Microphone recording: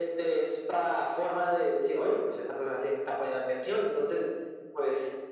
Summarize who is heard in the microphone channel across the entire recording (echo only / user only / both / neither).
echo only